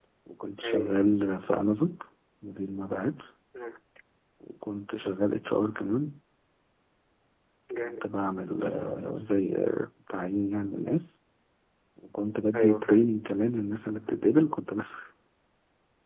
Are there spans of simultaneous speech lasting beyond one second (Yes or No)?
No